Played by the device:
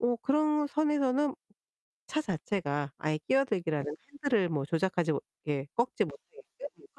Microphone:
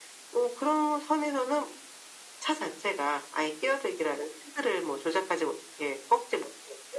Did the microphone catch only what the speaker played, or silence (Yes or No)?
Yes